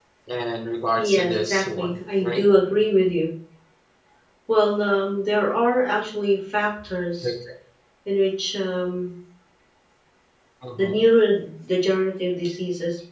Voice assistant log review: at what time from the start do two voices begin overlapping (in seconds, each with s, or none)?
1.0 s